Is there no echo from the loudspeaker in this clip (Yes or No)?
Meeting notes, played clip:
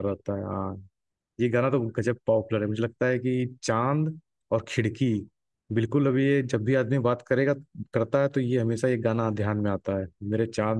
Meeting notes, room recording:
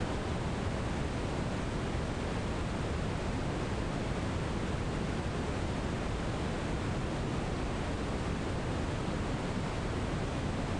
Yes